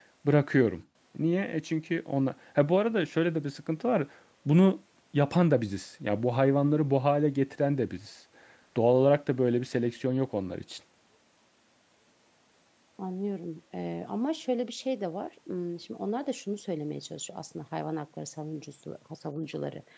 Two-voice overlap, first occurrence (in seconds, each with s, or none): none